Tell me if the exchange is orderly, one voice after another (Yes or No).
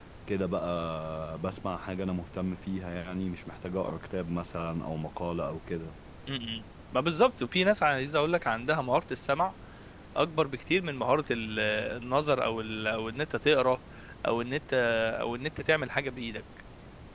Yes